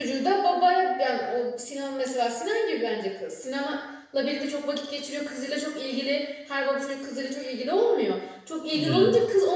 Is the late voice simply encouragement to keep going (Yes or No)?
Yes